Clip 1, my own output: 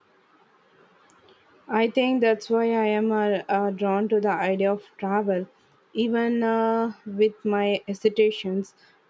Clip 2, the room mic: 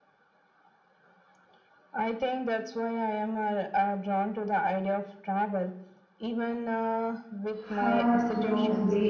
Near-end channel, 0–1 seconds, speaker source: neither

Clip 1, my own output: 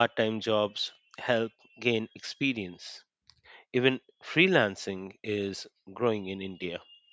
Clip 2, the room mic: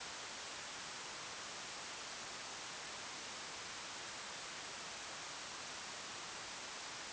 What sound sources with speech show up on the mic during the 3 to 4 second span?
neither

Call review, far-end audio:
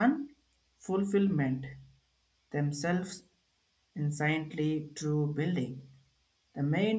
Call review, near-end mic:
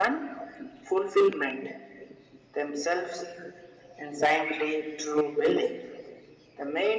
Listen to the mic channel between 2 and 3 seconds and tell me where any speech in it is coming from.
echo only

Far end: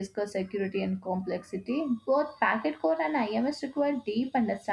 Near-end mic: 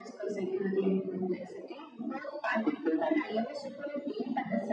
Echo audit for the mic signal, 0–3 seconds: echo only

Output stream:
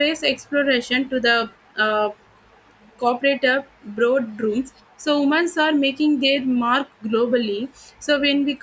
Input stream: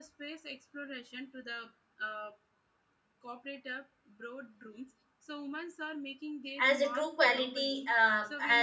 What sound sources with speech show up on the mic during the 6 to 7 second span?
both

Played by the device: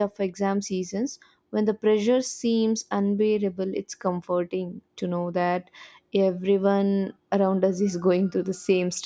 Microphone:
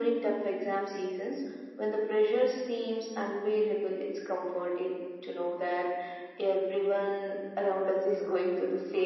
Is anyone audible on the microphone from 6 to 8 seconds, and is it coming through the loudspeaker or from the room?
echo only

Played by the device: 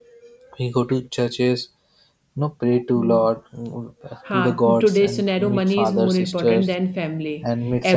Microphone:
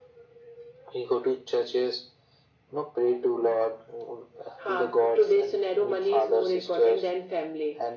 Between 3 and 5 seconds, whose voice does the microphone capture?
echo only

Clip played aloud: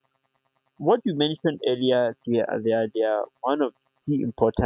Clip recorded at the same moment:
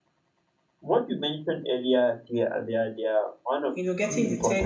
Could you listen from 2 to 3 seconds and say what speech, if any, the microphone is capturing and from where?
echo only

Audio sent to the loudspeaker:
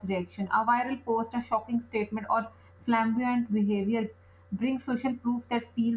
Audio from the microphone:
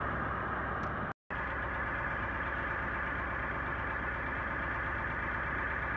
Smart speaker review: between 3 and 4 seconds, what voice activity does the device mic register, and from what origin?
neither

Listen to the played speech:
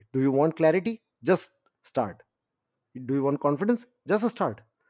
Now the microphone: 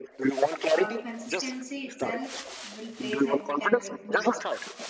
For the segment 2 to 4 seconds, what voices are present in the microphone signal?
both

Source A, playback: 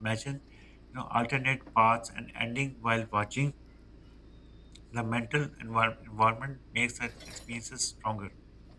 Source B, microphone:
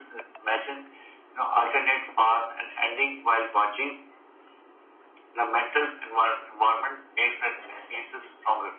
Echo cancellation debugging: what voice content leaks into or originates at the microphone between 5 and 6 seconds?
echo only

